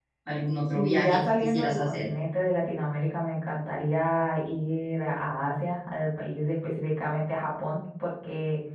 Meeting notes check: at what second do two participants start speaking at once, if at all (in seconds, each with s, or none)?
0.7 s